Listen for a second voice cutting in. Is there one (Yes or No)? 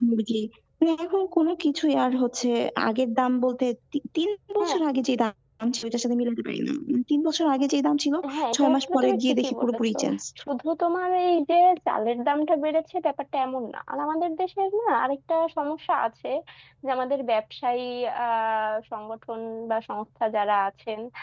Yes